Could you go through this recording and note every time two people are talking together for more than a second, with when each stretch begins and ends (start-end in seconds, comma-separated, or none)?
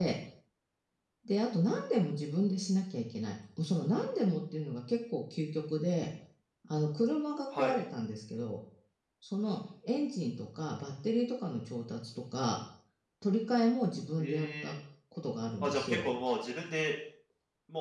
none